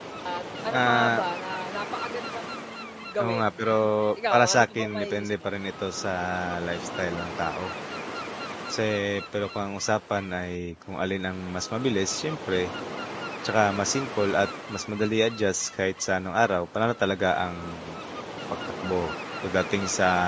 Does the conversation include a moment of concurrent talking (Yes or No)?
Yes